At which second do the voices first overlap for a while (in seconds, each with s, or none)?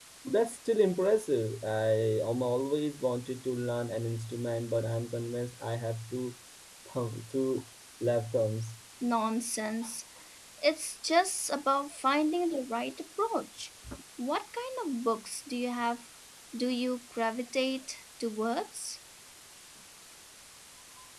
none